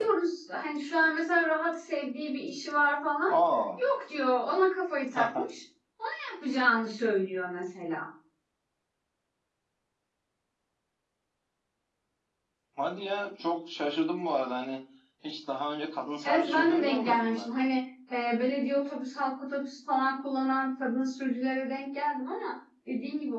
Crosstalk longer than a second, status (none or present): present